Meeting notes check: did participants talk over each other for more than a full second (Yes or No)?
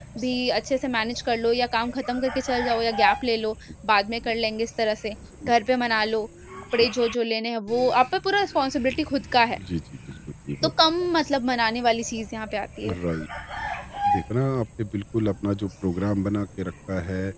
No